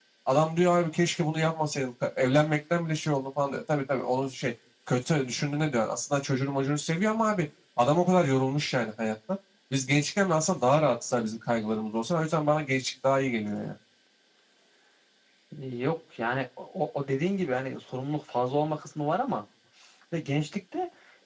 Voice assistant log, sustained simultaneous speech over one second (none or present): none